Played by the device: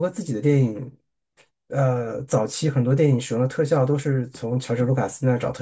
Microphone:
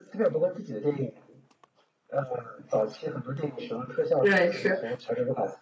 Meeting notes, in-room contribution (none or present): present